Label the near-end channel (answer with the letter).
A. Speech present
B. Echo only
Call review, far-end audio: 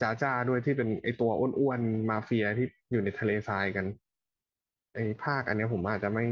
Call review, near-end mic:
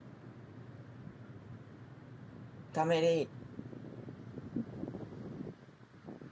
A